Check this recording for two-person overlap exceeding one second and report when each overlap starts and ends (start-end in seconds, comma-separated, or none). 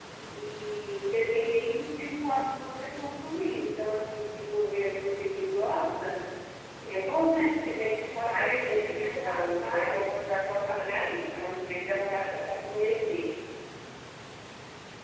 8.2-10.1